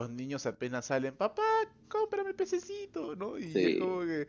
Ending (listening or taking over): listening